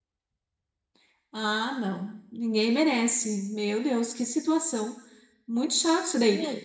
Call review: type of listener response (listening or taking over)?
listening